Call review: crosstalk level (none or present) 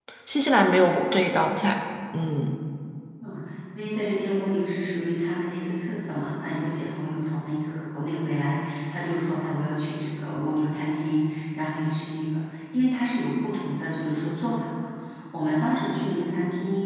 none